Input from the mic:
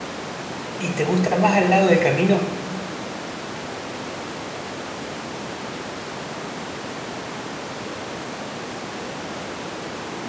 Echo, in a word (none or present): none